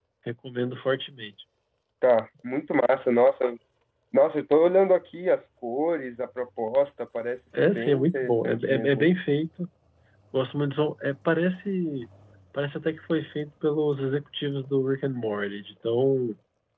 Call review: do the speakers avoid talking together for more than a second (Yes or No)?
No